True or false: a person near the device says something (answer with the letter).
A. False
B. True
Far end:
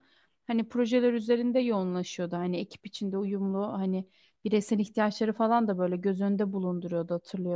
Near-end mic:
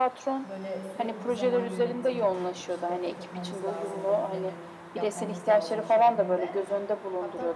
B